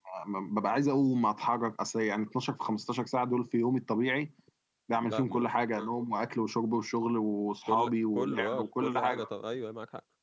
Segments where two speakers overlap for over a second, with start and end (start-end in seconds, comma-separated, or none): 7.7-9.2